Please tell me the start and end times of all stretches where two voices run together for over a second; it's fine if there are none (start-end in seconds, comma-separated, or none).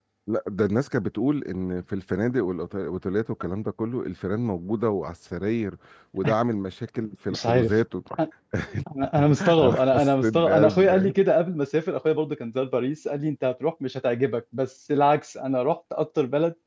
9.4-11.1